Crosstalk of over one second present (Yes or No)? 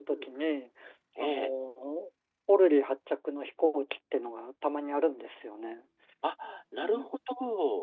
No